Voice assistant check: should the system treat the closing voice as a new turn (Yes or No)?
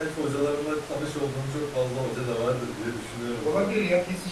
Yes